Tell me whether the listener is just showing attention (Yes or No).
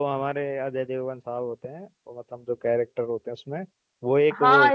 No